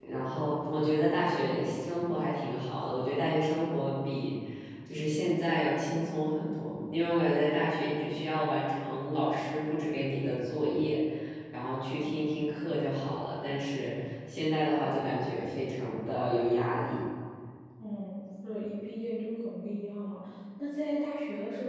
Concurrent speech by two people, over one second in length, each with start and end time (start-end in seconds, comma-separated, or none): none